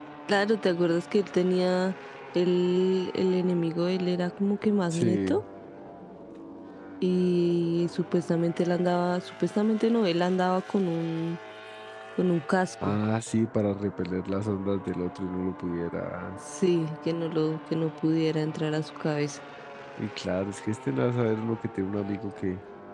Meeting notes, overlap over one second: none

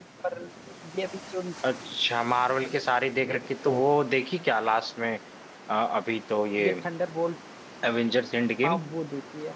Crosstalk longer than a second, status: none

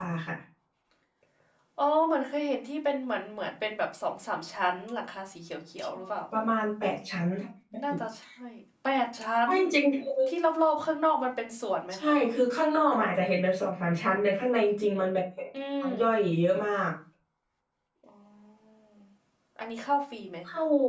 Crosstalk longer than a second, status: none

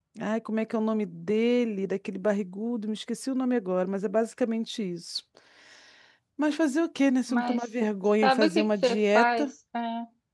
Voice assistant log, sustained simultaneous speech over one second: present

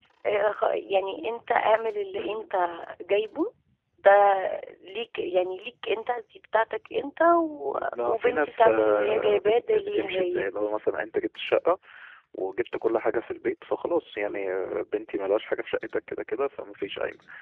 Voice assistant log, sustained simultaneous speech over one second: present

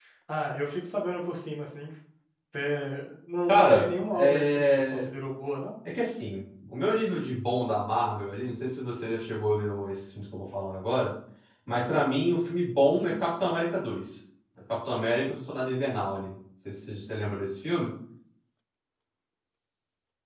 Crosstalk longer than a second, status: present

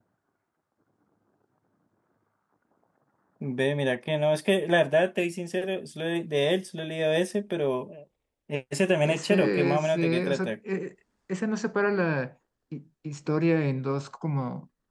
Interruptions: present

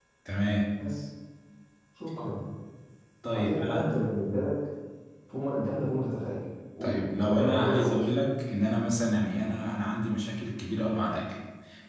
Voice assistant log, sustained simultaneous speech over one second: present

